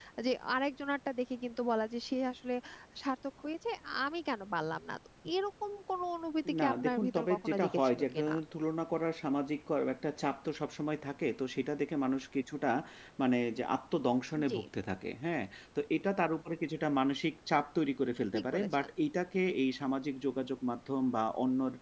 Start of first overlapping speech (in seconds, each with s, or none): 6.6 s